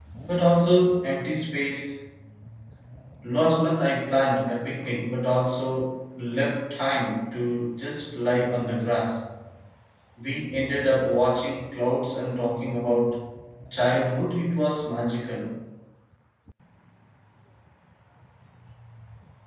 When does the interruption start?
none

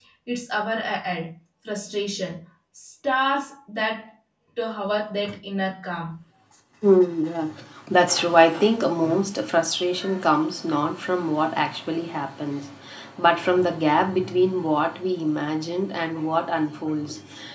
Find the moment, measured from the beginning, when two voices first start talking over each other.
none

